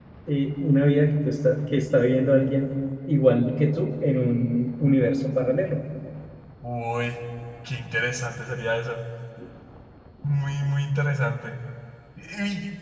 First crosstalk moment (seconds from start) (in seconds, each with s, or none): none